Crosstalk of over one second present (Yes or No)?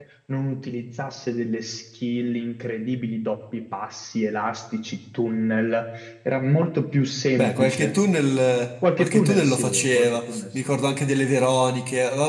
Yes